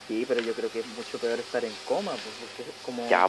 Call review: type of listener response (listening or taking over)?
taking over